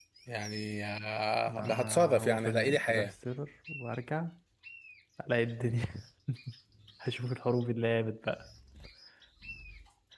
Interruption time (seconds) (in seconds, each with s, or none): 1.5 s